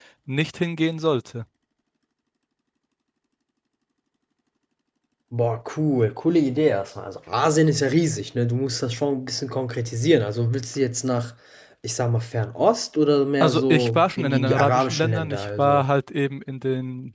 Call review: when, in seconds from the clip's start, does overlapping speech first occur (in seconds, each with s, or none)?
13.4 s